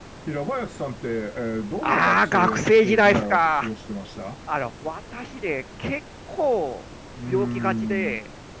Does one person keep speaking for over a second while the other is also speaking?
Yes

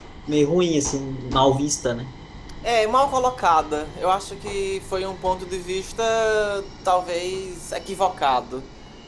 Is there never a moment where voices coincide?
Yes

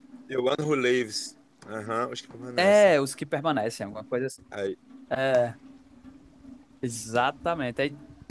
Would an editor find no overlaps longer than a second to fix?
Yes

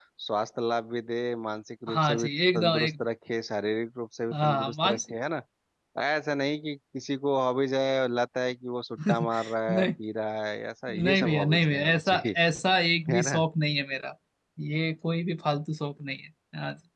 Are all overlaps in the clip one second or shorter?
No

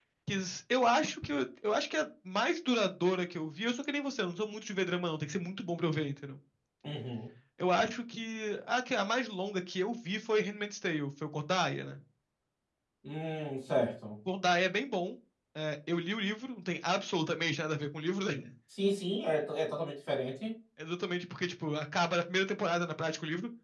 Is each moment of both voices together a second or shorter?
Yes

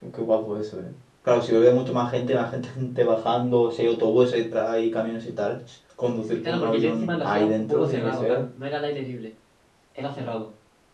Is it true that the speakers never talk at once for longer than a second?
No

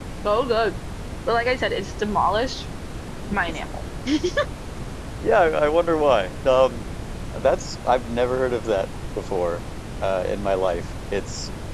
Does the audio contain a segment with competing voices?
No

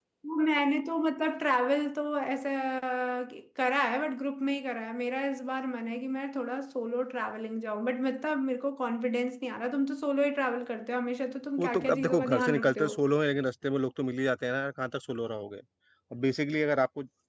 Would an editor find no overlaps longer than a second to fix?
No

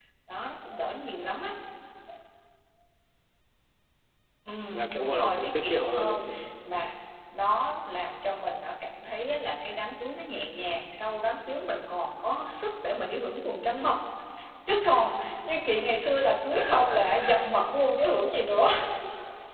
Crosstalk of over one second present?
Yes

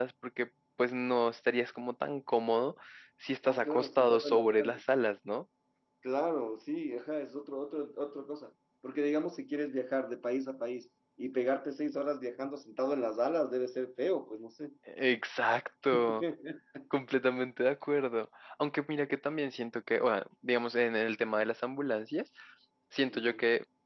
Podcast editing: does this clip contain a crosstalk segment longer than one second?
Yes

